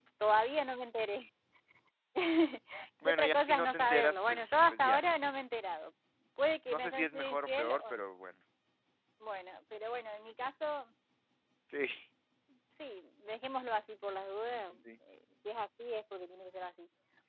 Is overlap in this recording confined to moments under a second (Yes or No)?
No